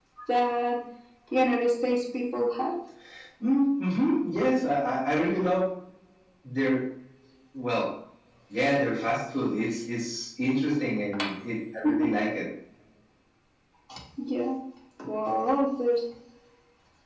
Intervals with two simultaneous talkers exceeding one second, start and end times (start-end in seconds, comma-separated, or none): none